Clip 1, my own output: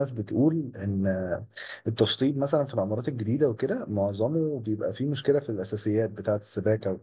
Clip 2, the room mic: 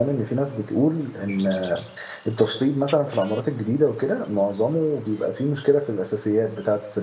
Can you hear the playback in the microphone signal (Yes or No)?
Yes